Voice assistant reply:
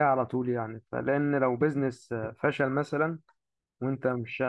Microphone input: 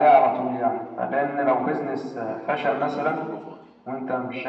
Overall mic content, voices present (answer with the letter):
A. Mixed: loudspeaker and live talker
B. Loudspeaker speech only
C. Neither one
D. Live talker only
A